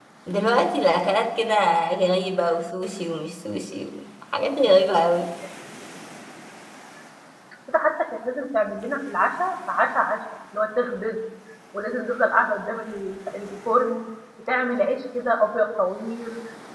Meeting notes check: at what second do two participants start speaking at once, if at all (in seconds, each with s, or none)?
none